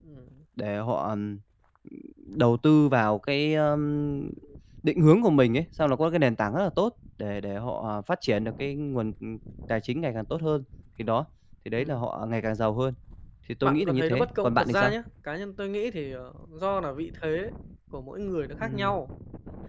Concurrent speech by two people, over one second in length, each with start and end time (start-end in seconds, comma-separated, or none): 13.6-14.9